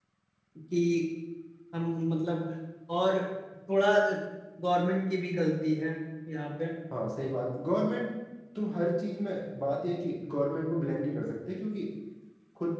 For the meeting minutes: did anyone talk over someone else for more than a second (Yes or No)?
No